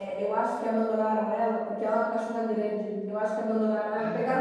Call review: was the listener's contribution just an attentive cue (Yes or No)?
Yes